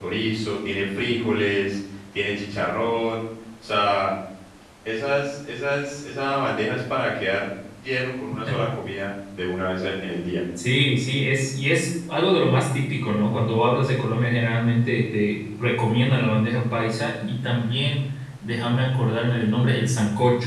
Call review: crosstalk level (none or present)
none